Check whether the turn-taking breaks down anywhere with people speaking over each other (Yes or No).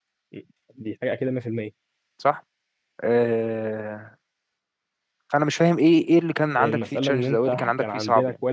Yes